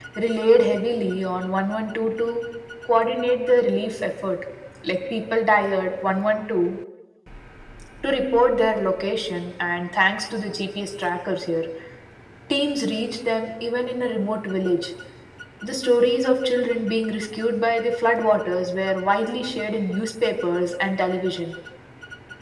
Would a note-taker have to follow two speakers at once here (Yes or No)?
No